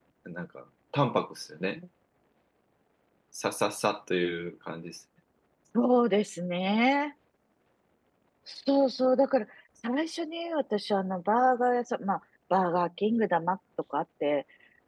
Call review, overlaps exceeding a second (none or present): none